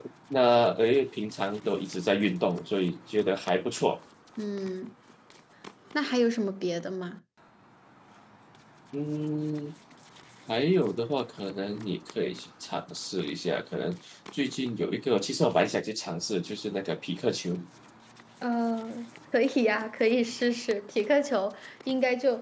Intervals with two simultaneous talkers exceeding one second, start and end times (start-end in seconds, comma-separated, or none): none